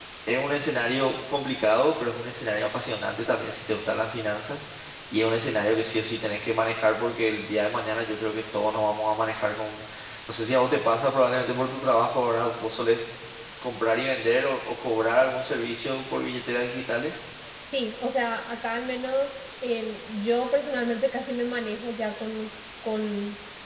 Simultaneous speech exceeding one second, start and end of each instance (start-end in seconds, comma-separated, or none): none